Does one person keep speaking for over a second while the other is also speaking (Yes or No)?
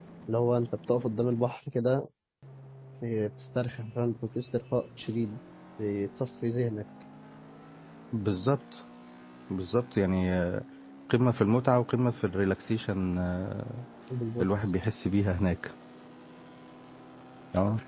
No